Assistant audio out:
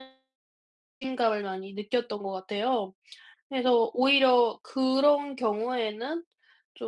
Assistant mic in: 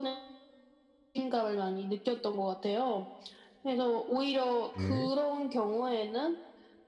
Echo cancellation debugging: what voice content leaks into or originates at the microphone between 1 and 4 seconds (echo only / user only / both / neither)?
echo only